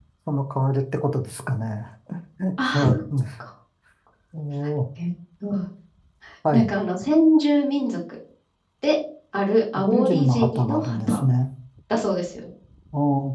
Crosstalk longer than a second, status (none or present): present